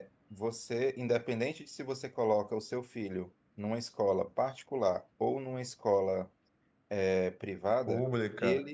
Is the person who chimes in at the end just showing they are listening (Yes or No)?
No